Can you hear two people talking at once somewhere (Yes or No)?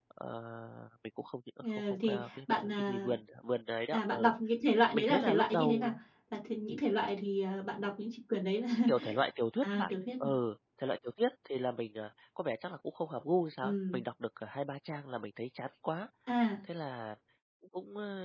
Yes